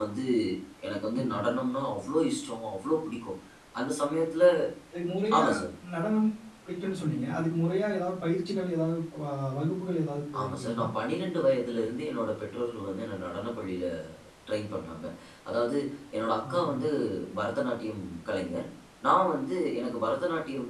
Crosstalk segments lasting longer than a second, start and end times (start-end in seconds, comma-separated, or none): none